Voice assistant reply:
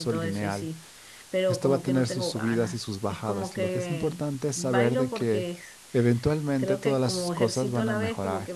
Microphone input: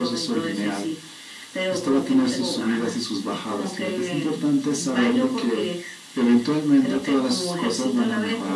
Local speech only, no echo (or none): none